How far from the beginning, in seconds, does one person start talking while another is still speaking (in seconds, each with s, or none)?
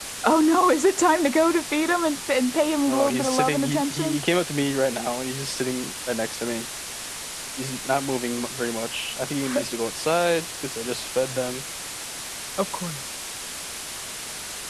2.9 s